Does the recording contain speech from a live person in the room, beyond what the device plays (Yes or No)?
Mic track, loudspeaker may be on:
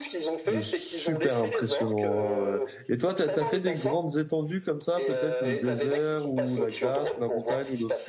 Yes